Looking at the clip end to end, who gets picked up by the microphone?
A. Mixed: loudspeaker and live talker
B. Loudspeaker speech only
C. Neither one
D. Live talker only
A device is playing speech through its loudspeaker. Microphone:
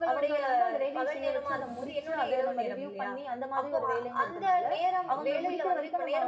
A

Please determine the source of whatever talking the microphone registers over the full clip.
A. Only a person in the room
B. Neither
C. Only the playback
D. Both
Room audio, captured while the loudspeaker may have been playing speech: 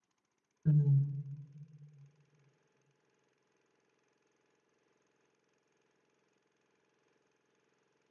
A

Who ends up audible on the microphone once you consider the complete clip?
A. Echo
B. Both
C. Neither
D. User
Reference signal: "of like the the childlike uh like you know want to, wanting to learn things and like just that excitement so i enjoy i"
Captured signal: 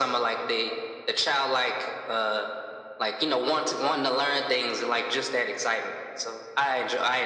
A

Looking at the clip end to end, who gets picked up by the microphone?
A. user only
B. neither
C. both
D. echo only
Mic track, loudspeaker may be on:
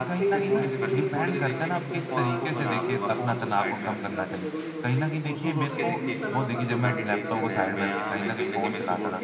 C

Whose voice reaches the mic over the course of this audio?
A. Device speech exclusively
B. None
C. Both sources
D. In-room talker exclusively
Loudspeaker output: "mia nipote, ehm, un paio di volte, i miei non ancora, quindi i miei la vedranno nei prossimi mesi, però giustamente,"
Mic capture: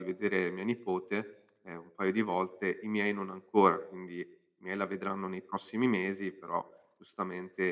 A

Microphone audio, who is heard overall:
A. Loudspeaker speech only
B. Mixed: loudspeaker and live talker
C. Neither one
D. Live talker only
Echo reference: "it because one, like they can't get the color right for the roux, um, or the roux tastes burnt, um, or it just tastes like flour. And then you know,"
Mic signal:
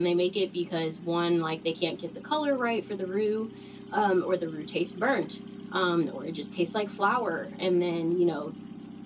A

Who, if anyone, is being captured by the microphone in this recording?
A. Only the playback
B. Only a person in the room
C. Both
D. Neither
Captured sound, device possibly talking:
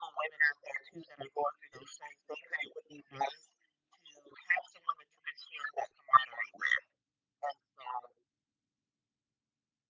A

